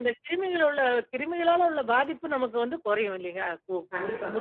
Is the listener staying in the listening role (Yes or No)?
No